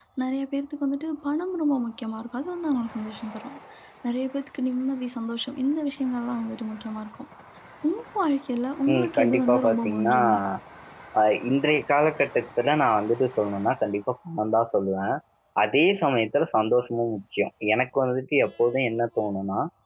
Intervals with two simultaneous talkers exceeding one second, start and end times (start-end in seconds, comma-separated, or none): 8.9-10.2